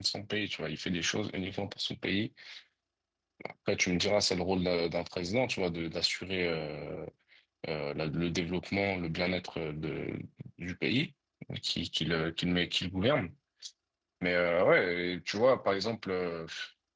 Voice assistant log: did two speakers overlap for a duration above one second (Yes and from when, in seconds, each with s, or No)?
No